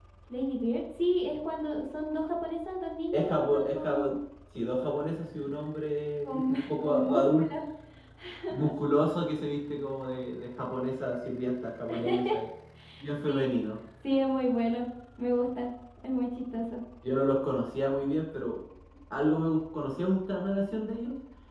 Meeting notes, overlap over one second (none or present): present